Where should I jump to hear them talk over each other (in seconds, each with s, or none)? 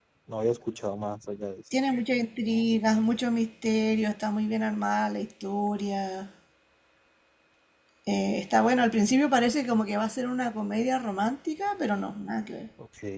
none